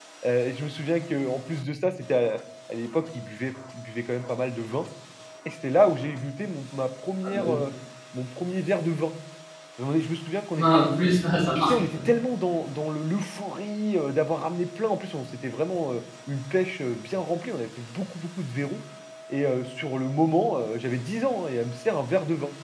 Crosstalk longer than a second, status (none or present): none